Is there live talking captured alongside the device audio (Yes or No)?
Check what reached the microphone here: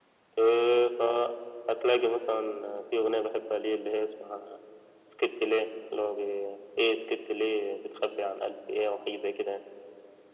No